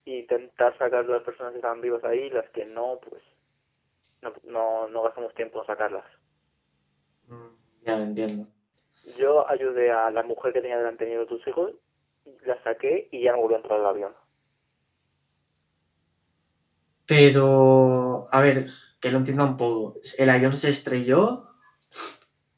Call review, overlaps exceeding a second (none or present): none